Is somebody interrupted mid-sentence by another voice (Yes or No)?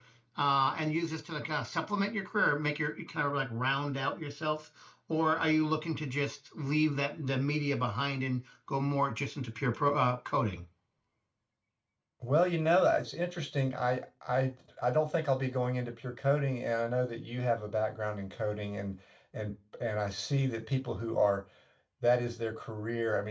No